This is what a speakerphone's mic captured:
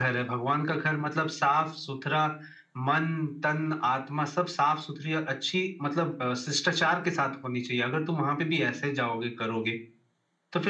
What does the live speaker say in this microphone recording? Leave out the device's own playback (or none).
none